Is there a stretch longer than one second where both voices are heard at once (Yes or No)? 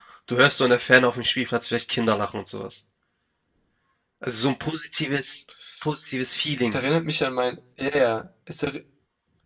No